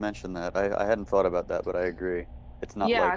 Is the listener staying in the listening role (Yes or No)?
No